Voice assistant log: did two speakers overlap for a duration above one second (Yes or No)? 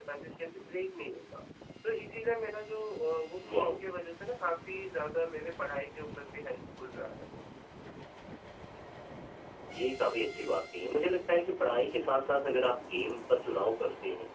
No